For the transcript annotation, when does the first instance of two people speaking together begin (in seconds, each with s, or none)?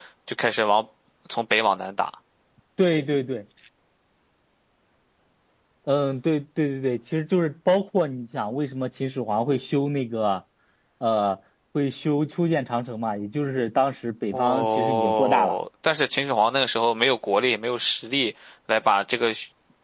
14.3 s